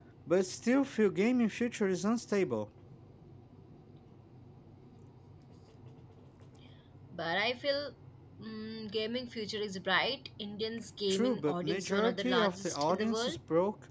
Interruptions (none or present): present